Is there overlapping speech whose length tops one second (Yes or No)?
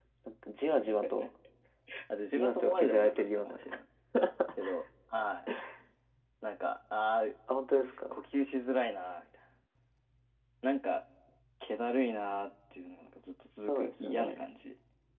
Yes